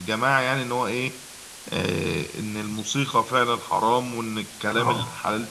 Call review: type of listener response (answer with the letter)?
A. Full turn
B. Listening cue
B